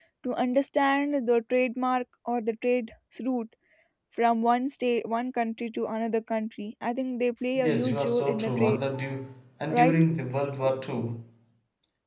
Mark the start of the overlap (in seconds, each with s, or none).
7.5 s